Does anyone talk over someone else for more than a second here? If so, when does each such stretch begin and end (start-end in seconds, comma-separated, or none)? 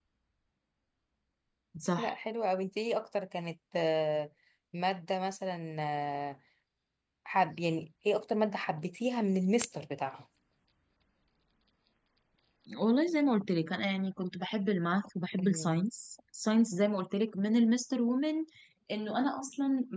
none